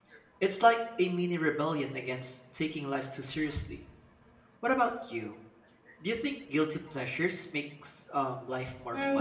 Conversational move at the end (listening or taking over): taking over